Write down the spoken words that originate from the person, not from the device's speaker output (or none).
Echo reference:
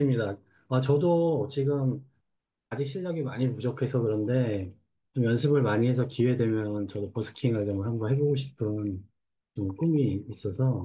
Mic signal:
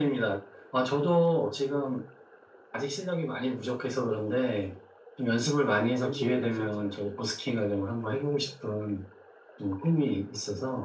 가본 지 오래되셨죠?